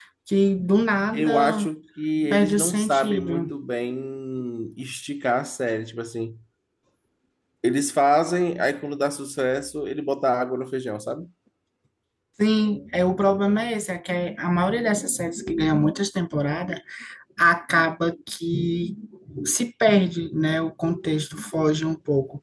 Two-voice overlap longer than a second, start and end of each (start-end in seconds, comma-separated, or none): 2.3-3.5